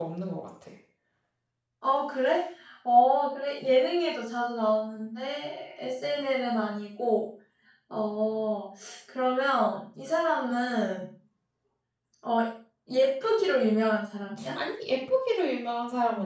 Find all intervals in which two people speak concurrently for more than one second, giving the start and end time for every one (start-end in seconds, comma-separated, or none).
none